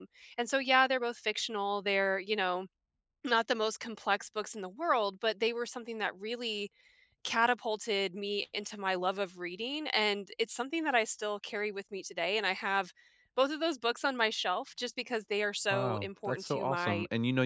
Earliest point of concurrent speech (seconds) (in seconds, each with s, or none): 15.7 s